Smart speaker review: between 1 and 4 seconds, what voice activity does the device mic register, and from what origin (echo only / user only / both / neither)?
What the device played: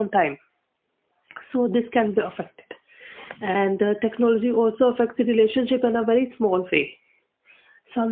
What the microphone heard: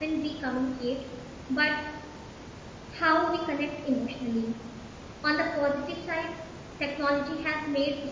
user only